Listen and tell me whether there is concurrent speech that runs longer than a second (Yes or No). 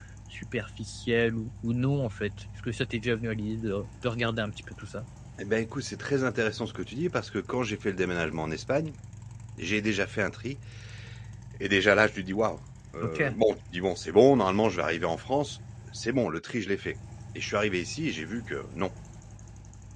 No